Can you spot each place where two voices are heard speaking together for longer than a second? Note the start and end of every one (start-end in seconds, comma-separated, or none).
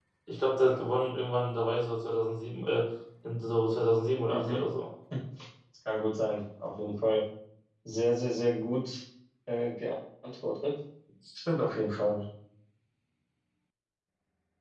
none